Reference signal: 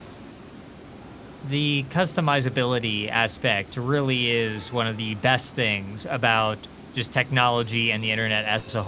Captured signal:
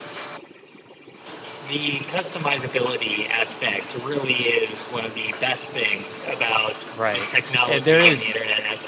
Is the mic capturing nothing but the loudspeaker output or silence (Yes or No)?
No